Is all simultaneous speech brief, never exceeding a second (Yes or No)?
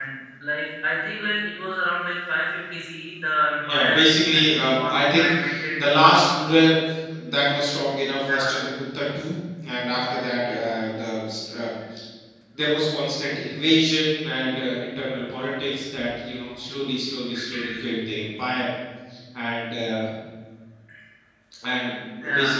No